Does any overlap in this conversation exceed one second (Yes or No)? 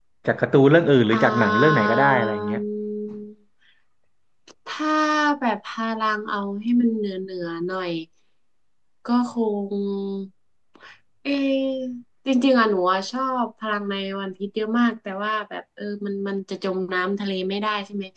Yes